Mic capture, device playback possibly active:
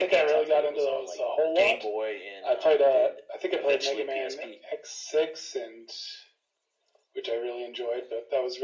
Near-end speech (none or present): none